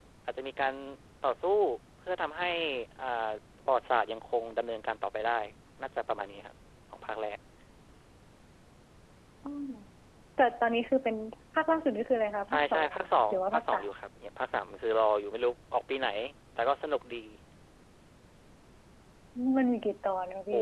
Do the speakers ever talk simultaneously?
Yes, from 12.5 s

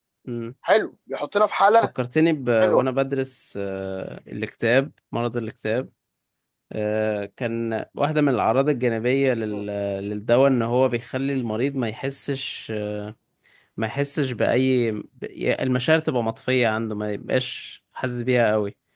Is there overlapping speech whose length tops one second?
No

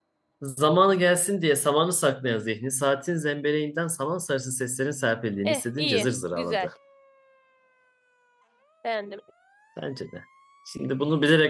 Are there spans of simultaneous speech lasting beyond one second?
Yes, from 5.4 s

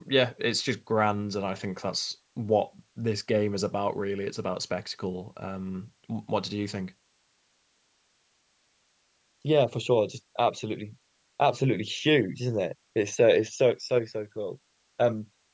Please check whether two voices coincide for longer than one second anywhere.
No

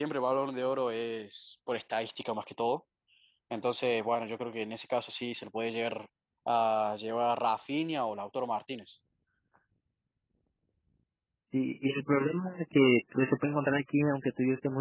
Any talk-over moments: No

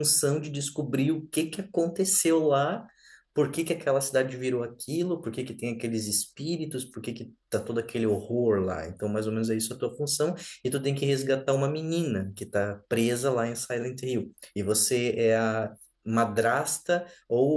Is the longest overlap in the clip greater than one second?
No

